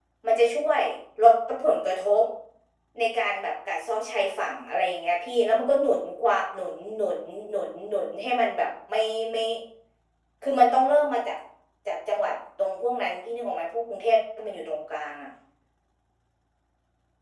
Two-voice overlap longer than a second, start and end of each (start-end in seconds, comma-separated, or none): none